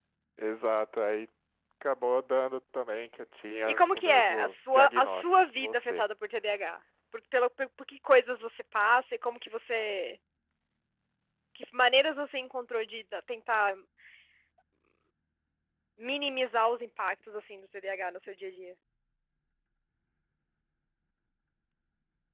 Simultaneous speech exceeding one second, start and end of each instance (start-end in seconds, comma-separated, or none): 3.7-6.0